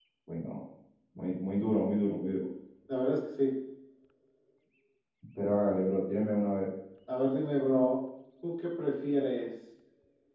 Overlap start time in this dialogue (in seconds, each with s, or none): none